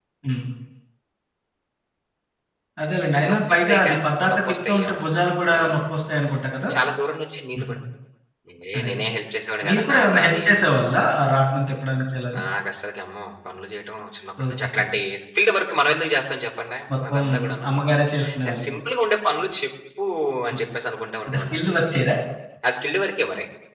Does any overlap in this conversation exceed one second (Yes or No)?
Yes